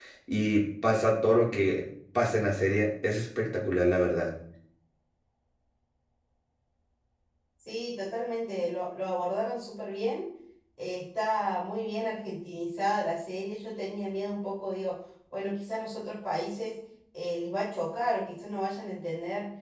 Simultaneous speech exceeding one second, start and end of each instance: none

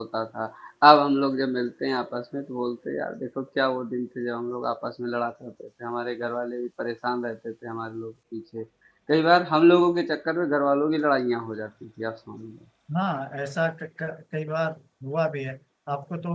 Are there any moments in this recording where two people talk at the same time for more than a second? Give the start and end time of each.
none

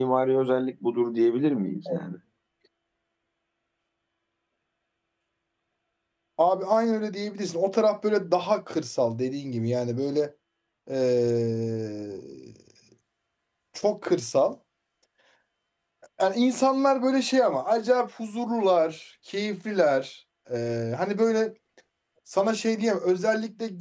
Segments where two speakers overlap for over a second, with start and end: none

